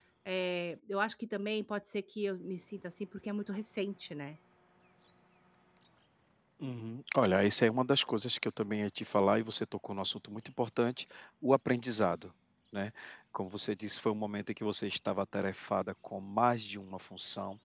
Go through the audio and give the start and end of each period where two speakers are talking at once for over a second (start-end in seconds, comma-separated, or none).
none